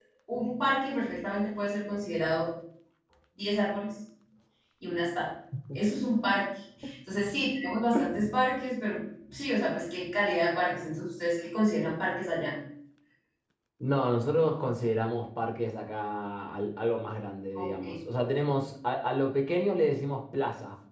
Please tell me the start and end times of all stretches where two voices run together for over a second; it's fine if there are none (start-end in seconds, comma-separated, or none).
none